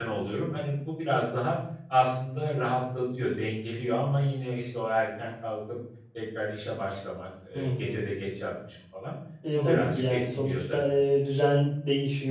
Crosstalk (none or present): present